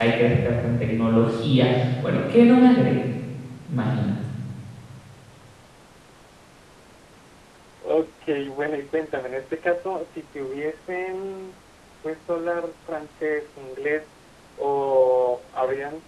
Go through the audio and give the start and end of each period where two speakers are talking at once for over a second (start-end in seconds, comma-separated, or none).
none